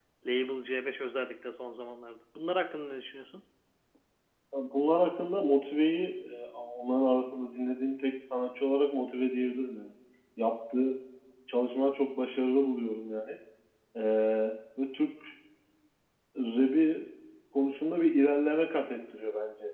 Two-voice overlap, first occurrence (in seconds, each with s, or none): none